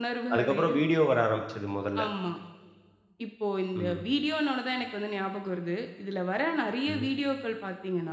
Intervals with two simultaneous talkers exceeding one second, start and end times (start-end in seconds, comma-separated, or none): none